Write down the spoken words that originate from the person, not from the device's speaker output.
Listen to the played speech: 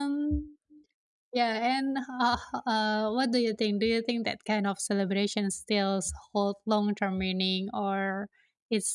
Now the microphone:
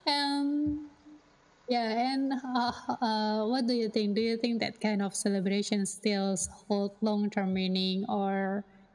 none

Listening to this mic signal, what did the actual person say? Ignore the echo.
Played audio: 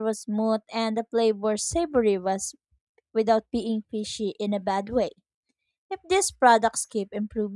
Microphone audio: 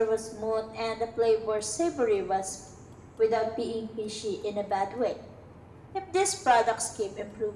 none

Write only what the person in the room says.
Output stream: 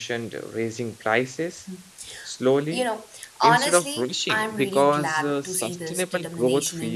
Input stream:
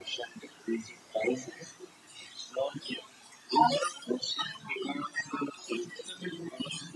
none

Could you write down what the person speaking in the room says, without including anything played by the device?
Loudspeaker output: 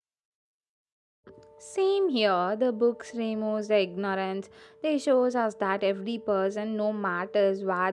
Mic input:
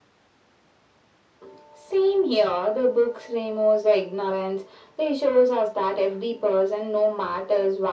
none

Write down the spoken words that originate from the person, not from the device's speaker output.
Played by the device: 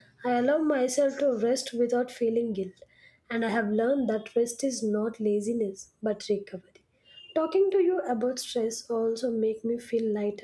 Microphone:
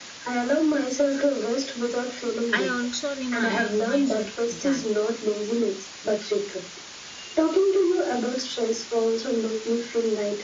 I also remind myself that

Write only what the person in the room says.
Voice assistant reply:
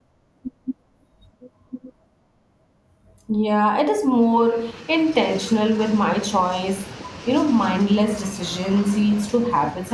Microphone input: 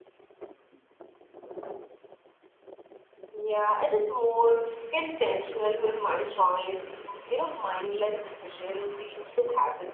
none

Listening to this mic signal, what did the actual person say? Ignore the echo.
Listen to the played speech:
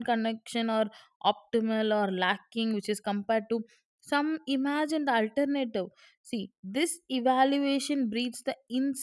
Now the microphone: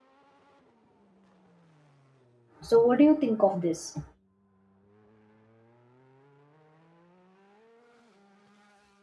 So what do you think of this?

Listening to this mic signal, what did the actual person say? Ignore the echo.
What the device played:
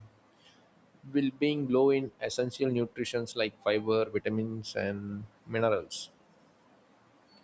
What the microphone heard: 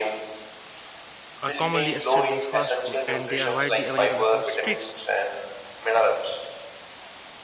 are commonly associated with fast food and they are widely available across streets,

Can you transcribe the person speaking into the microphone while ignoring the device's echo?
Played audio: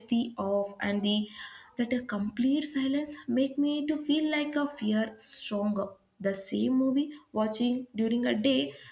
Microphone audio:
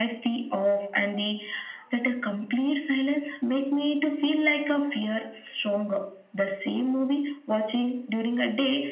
none

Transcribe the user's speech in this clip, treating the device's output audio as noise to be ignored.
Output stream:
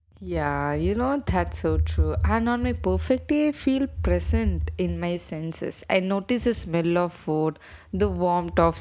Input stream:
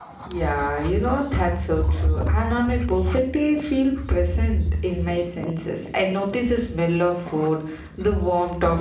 none

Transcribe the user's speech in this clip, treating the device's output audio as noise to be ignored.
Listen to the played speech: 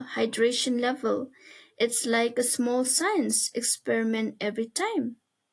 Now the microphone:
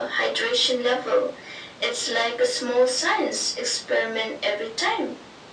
none

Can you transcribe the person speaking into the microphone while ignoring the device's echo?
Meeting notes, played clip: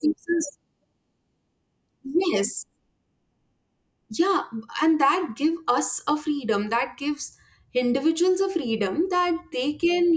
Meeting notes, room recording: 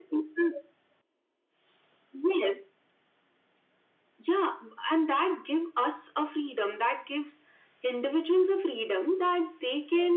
none

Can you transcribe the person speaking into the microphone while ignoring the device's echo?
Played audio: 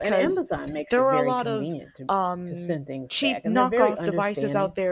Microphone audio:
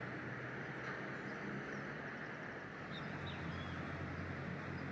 none

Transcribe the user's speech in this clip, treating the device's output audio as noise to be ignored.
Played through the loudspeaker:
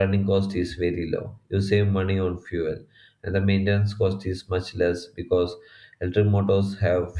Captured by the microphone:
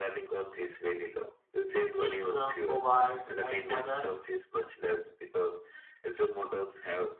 lithium, cobalt, and other

